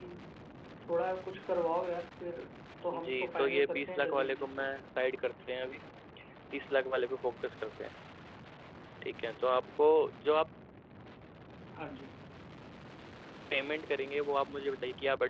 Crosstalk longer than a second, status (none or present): present